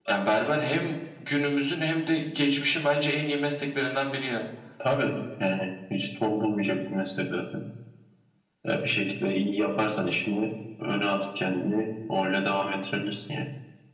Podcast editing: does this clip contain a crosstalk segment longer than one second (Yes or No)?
No